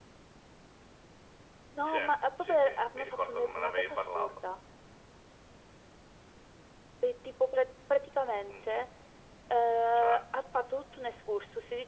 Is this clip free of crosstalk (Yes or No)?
No